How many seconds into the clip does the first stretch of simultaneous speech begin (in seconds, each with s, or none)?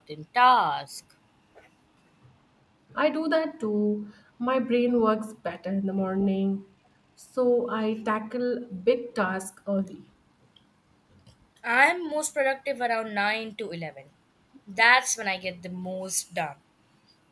none